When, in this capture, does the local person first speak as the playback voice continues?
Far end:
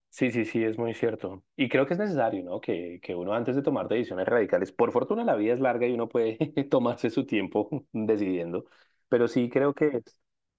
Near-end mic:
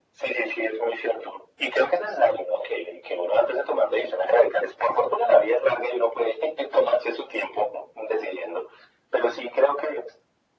none

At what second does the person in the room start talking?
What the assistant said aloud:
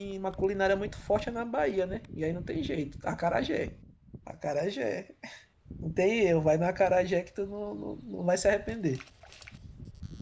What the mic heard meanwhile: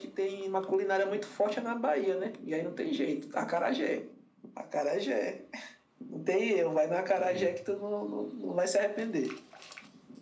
7.2 s

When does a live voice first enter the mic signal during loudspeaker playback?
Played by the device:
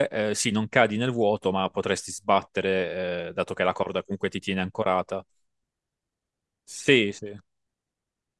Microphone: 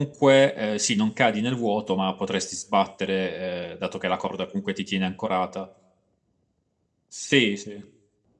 none

